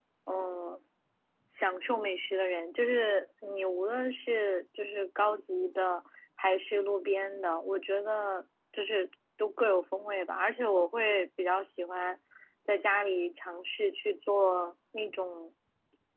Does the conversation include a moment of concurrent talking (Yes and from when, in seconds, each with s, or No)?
No